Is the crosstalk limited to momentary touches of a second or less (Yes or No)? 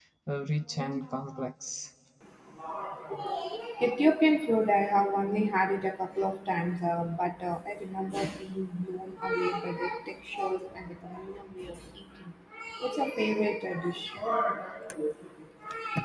Yes